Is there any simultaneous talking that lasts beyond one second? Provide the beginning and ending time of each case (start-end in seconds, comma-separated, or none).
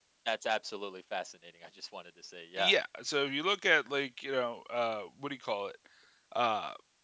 none